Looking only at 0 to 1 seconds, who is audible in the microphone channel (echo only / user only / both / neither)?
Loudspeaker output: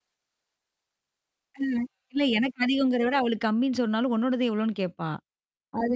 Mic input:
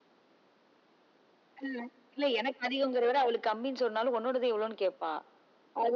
neither